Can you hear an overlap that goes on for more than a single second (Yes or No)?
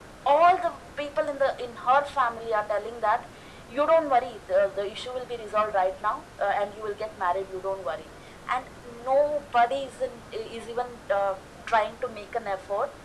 No